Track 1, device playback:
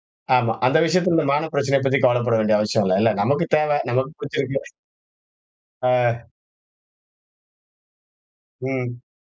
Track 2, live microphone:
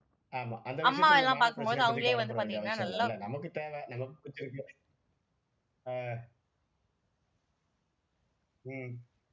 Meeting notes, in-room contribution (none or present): present